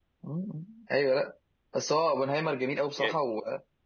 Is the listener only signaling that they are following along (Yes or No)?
Yes